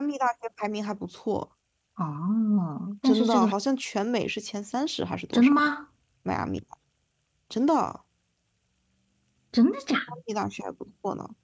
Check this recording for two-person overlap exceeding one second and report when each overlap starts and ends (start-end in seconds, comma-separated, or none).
none